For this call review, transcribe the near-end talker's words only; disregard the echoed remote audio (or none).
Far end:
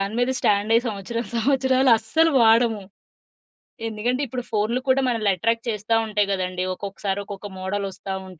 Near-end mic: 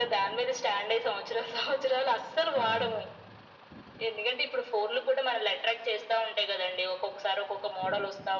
కాదండి.